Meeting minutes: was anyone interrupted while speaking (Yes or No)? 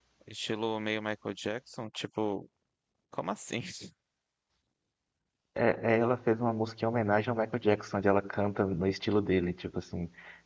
No